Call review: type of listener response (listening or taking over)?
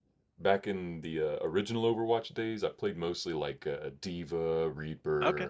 listening